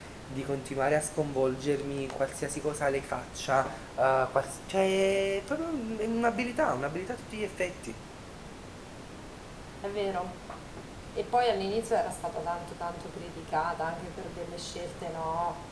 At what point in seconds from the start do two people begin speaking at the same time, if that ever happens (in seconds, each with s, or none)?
none